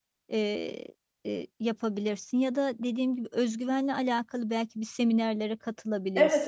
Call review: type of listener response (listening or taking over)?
taking over